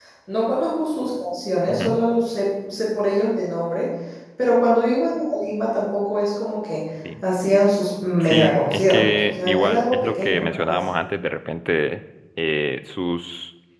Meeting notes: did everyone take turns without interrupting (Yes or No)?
No